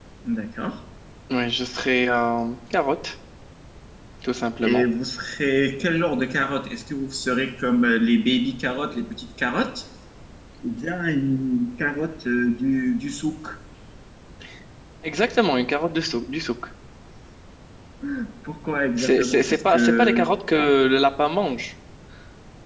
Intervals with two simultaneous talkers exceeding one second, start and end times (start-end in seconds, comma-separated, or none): 19.0-20.3